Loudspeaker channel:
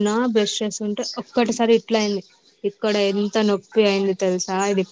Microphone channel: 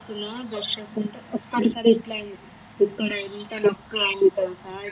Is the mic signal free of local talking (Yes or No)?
Yes